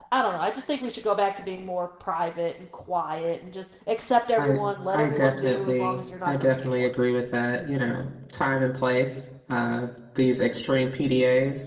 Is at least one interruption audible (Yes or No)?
Yes